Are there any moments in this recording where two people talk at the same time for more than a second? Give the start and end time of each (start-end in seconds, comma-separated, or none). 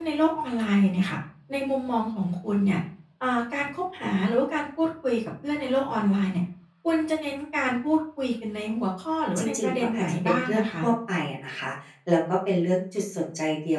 9.4-10.7